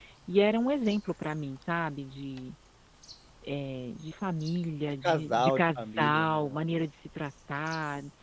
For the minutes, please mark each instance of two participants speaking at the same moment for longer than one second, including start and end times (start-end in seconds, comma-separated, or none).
5.0-6.6